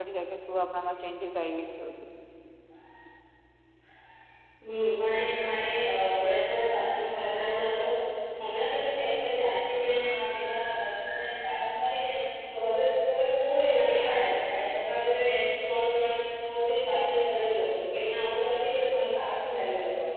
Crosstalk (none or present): none